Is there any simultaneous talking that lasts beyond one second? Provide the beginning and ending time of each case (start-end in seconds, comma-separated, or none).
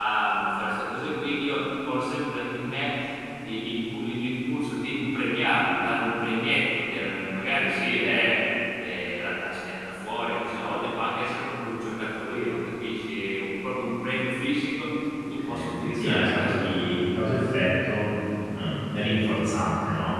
15.4-16.8